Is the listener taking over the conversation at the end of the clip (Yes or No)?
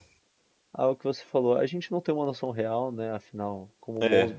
No